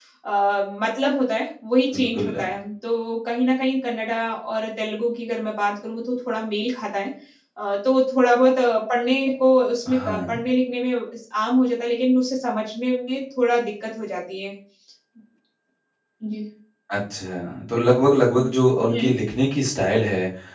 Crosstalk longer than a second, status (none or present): none